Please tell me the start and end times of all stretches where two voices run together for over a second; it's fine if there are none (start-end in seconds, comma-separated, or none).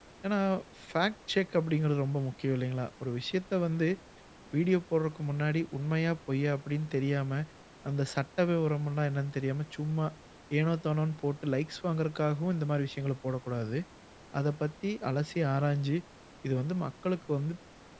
none